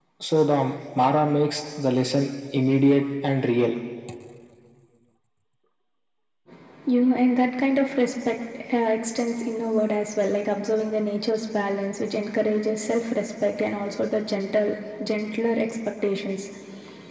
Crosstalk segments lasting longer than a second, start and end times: none

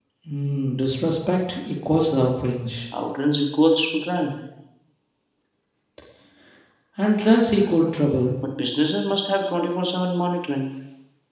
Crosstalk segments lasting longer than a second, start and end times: none

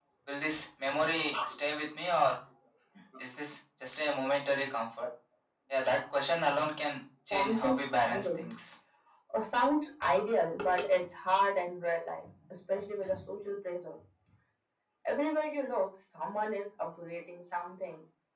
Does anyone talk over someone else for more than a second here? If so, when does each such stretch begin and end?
7.3-8.5

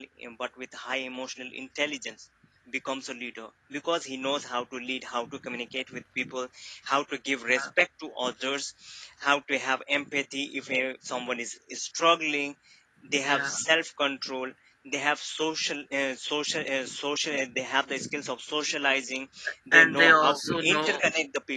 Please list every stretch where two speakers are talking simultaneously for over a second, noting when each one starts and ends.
19.7-21.0

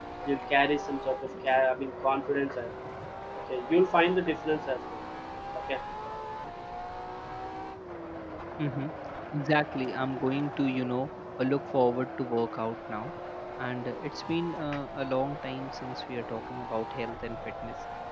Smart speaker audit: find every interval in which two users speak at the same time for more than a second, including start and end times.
none

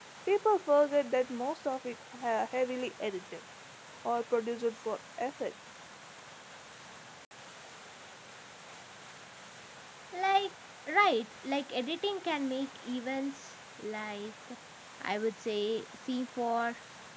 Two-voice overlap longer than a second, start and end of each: none

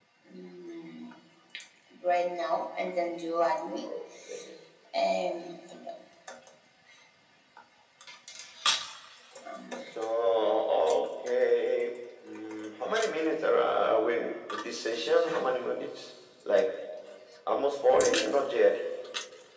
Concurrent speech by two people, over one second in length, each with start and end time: none

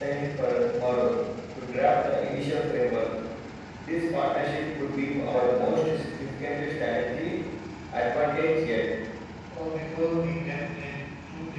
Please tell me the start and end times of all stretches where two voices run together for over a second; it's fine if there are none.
none

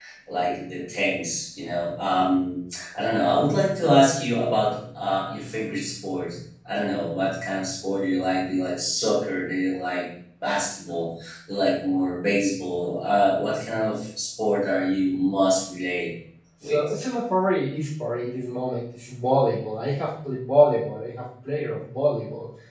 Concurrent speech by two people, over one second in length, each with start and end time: none

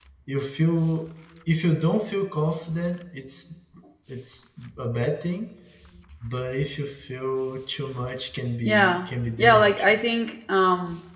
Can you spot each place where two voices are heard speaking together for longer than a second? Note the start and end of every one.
8.6-10.0

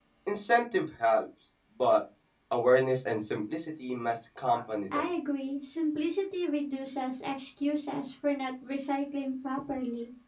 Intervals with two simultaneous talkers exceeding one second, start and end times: none

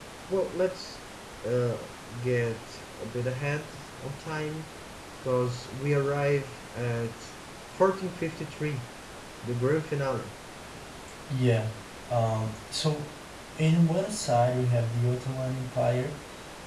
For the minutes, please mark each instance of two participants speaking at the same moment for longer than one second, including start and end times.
none

